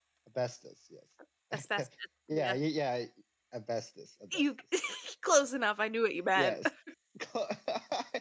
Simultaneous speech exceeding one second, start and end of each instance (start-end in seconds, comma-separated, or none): none